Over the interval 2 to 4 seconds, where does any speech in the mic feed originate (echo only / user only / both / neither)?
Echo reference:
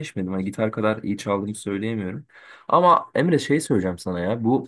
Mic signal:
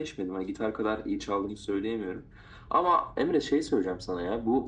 echo only